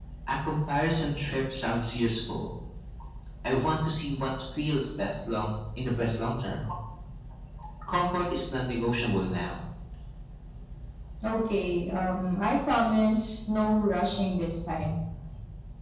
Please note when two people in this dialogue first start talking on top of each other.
none

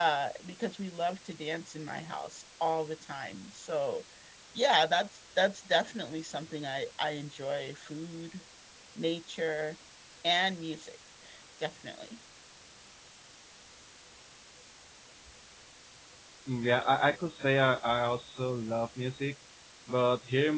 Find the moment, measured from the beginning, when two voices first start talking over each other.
none

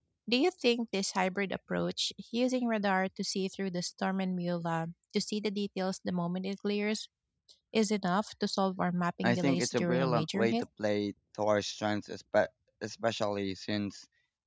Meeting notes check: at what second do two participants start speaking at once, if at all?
9.2 s

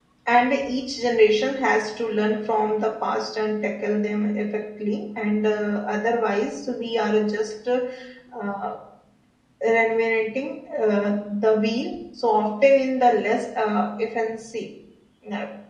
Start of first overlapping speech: none

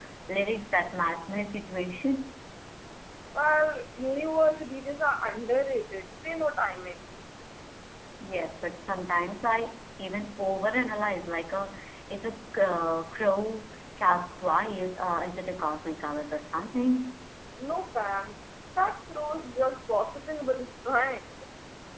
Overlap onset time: none

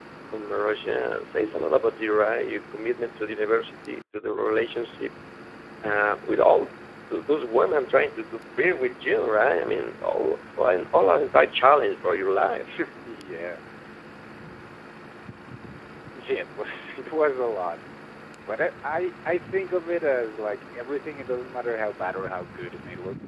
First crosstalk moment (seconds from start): none

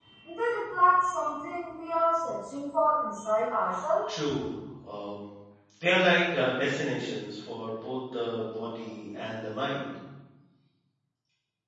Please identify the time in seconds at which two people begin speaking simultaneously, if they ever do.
none

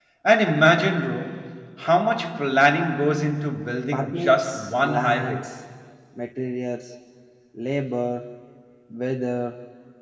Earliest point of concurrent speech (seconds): 3.9 s

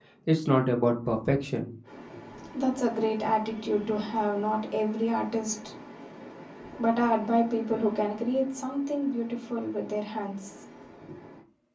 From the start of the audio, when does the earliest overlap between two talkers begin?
none

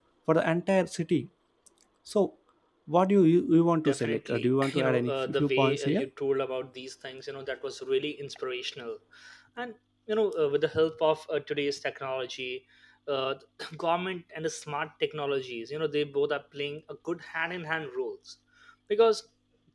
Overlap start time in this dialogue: 3.8 s

